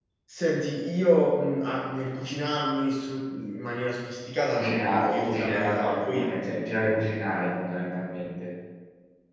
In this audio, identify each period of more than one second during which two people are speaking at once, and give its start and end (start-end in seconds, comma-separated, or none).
4.4-6.2